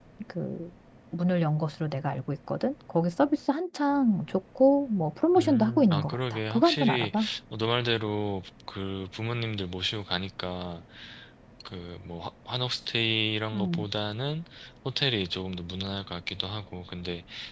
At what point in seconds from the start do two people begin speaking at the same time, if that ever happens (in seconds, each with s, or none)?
5.3 s